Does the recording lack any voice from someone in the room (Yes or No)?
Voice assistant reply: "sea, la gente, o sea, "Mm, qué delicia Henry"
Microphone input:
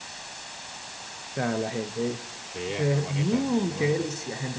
No